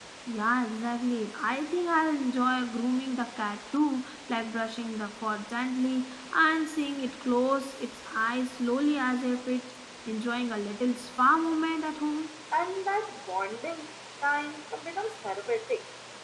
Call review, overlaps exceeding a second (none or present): none